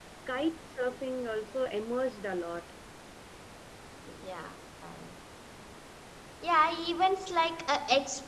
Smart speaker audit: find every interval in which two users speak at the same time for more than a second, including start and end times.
none

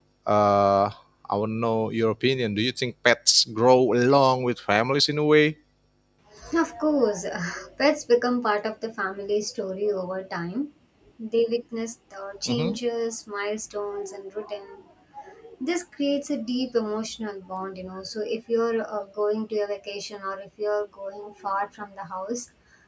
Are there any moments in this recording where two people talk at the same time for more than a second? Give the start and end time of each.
none

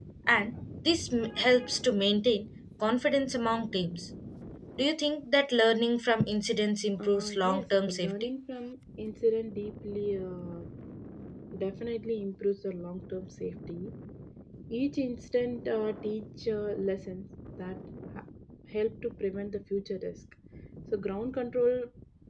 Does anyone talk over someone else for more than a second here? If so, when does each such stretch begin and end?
7.0-8.3

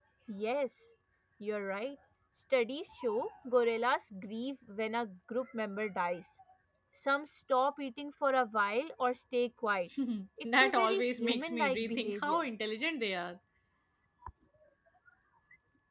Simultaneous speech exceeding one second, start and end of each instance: 10.6-12.4

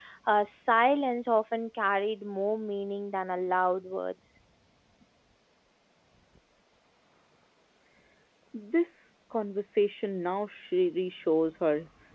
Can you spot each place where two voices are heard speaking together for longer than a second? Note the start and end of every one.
none

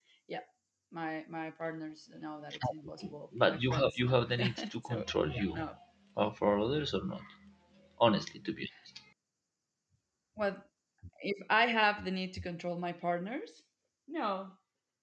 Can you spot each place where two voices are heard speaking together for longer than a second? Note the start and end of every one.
3.5-5.6

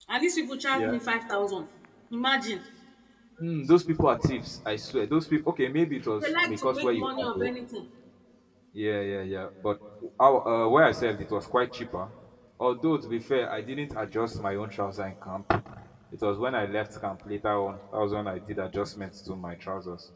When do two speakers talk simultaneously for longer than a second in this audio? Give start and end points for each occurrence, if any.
6.2-7.5

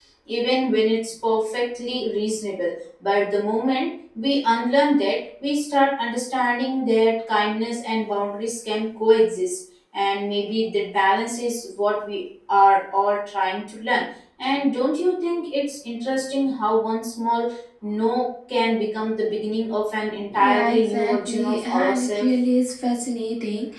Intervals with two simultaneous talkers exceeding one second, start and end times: 20.4-22.3

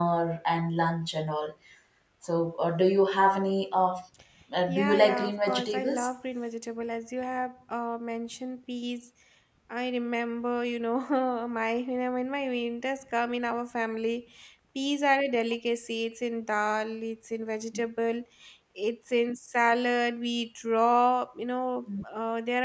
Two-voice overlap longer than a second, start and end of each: 4.7-6.1

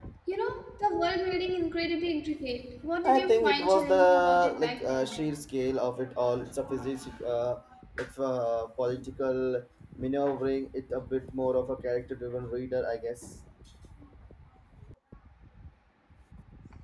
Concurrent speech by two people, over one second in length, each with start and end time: 3.0-5.2

